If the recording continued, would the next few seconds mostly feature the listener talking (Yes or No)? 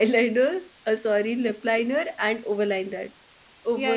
Yes